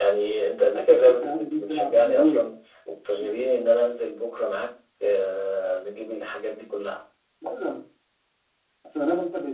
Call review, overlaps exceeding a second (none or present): present